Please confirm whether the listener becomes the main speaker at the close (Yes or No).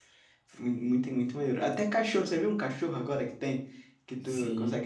No